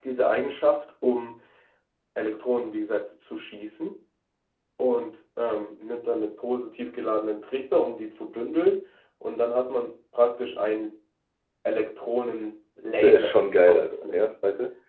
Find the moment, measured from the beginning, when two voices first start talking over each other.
13.0 s

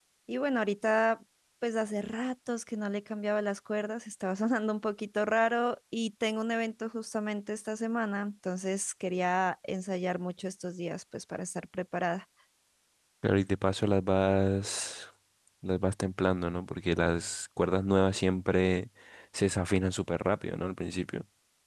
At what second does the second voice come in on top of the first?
none

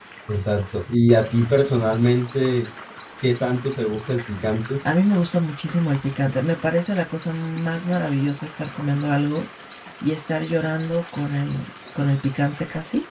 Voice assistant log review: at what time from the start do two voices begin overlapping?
none

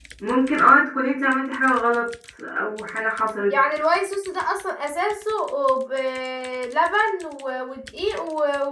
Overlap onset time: none

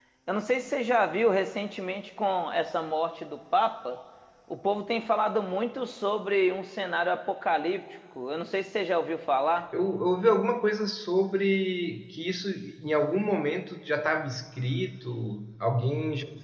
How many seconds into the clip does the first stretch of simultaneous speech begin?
none

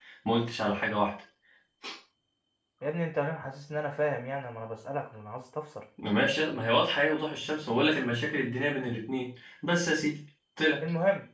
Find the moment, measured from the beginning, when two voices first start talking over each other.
none

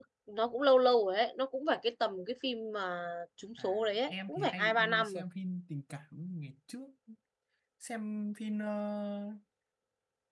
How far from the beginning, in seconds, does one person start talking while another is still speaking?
3.6 s

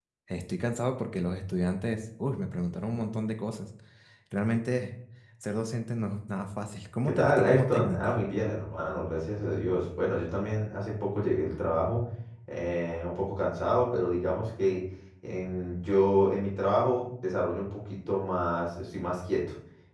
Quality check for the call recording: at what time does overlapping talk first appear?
7.0 s

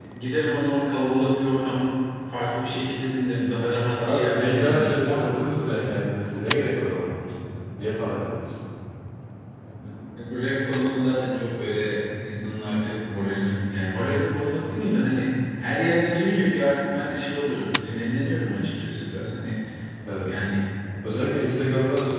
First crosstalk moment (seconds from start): 4.0 s

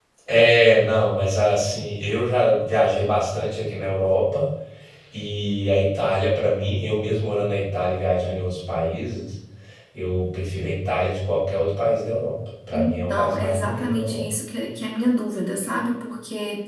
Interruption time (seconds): 12.7 s

